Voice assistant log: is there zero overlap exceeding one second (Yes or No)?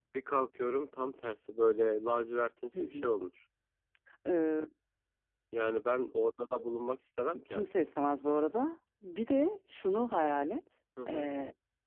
Yes